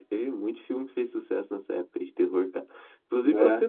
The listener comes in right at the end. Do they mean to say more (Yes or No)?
No